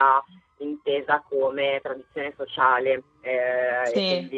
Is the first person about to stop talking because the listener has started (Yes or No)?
No